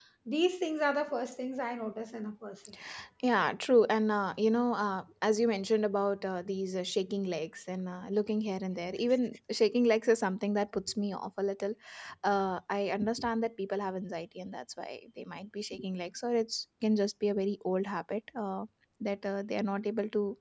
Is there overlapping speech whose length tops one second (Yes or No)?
No